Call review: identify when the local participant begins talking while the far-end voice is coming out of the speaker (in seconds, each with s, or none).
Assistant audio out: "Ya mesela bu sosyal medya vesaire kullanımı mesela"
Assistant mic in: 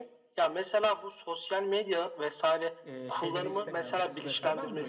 2.8 s